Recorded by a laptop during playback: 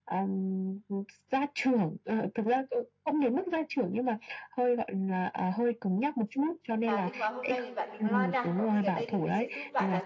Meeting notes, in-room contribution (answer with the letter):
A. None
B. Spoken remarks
B